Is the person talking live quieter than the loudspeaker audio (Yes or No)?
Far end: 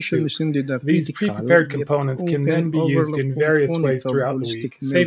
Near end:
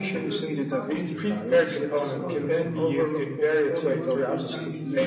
Yes